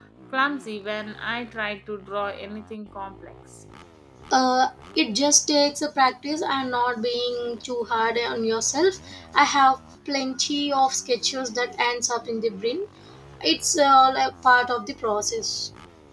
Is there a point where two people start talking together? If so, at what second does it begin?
none

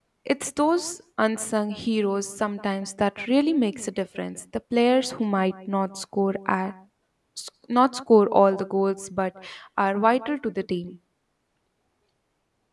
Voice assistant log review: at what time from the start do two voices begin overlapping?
none

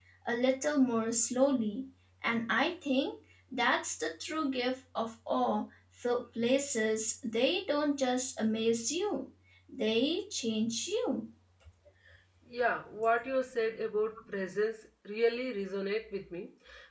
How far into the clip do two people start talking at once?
none

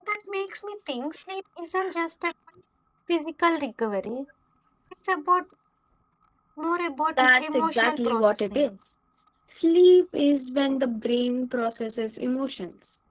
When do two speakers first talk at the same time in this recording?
7.2 s

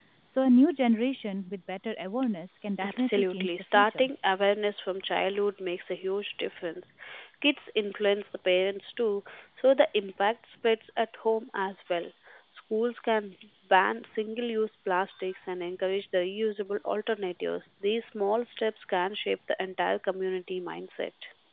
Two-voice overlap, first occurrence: 2.8 s

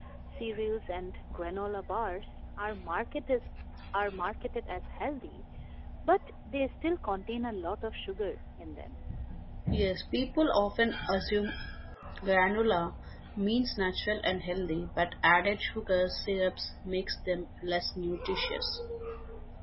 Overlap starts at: none

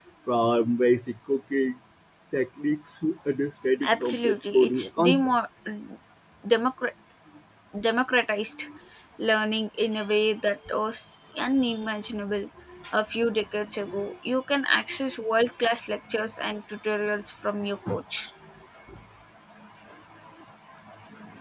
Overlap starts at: 3.8 s

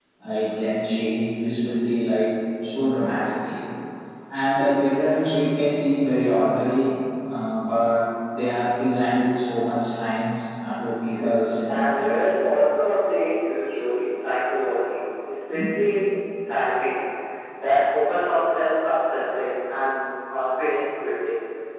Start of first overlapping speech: 11.1 s

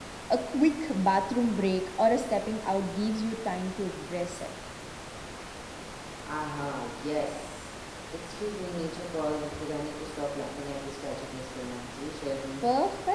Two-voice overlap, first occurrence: none

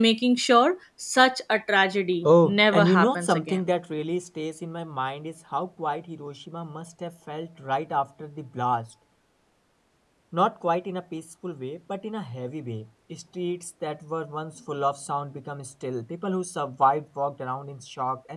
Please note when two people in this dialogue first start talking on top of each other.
2.2 s

